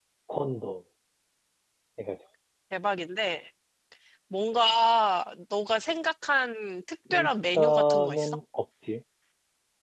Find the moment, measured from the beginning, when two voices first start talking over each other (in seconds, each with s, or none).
7.1 s